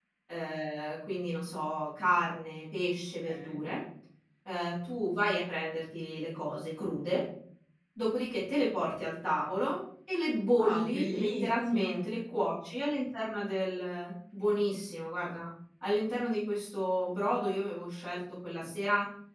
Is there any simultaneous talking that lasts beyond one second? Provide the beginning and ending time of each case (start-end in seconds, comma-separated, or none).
10.5-11.9